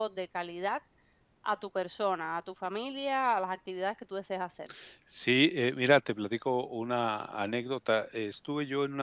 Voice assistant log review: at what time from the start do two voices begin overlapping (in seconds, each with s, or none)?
none